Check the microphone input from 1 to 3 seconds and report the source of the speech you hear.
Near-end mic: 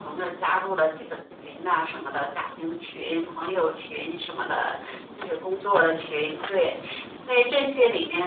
echo only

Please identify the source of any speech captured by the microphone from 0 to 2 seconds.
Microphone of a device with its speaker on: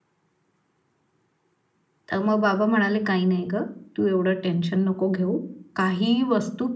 neither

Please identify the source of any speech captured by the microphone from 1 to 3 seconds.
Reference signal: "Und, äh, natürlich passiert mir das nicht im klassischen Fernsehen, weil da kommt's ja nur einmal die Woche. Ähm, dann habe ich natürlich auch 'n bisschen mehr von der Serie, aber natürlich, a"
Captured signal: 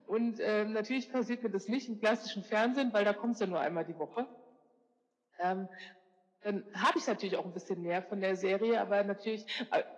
echo only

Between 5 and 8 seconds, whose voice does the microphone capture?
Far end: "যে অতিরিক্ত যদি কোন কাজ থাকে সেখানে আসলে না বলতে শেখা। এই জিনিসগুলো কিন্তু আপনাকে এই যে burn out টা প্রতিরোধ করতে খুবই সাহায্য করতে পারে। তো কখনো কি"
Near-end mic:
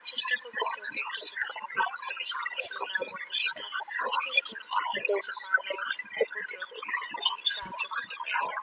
echo only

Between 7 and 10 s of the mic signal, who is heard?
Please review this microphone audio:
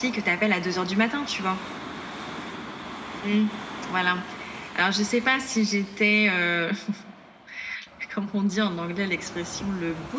echo only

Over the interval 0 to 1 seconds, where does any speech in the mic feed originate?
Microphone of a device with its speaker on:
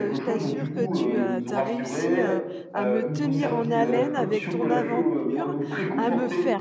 both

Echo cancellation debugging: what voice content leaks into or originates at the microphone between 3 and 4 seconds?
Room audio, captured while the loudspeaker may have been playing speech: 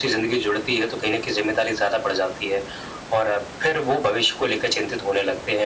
echo only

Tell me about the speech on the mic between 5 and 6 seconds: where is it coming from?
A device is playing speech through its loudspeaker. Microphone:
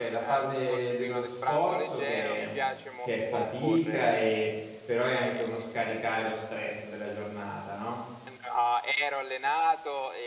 both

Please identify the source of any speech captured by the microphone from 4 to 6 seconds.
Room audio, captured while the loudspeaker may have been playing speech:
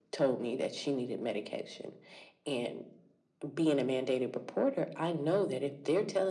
echo only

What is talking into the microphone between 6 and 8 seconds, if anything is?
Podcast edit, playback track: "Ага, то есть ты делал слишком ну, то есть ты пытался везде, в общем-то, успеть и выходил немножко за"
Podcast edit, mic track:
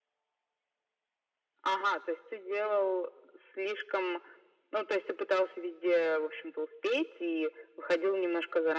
echo only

